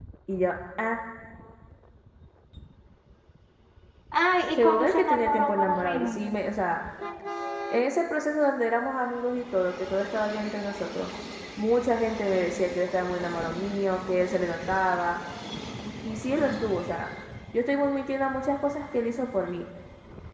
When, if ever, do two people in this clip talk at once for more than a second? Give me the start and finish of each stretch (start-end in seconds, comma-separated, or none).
4.6-6.2